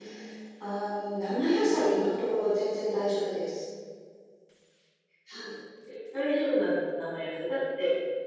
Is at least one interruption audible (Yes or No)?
No